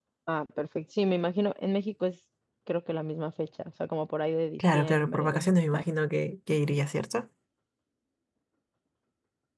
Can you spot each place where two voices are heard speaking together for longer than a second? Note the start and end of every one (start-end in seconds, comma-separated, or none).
4.6-5.8